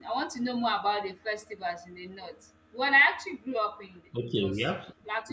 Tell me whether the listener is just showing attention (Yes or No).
No